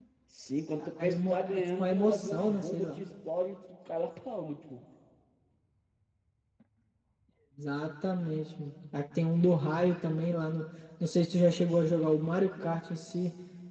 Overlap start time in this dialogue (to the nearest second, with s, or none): 1 s